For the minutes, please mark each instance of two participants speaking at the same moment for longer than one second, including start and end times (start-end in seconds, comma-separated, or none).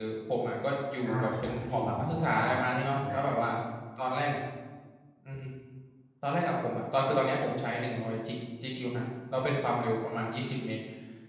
1.0-2.4